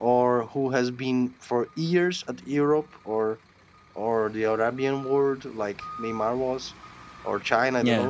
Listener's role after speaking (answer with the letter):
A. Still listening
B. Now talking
A